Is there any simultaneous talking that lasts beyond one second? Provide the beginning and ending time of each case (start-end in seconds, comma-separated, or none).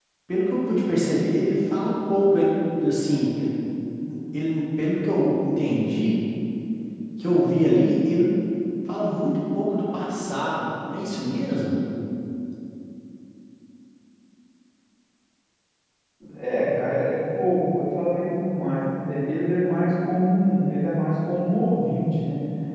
none